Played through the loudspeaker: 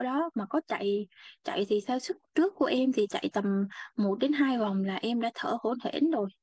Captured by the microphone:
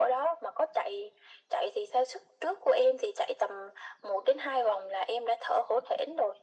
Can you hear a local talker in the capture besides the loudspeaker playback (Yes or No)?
No